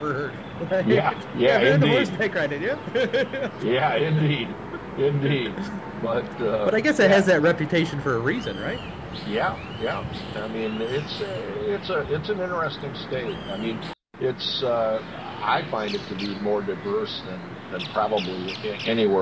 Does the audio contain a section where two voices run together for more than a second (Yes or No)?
Yes